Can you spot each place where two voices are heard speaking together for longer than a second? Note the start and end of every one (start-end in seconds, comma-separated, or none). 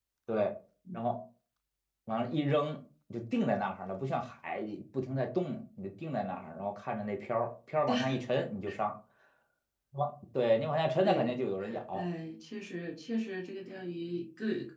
none